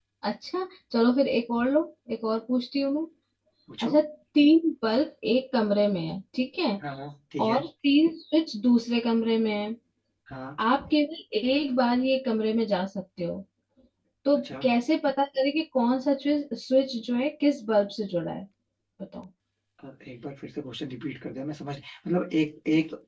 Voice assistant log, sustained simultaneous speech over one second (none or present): none